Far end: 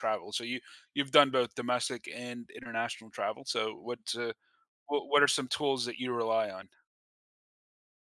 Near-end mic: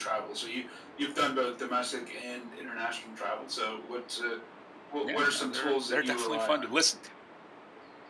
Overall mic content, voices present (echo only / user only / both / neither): both